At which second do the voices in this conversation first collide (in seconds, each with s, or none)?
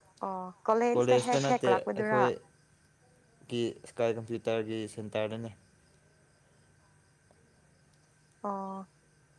1.0 s